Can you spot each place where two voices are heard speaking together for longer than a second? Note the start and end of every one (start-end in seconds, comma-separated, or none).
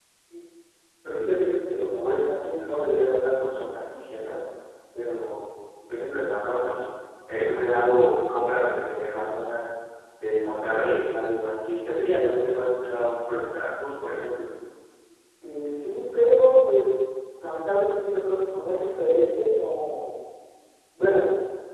none